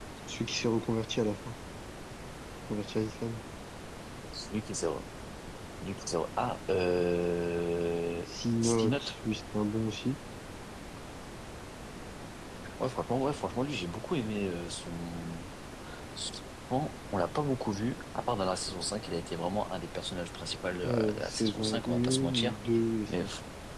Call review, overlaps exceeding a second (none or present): present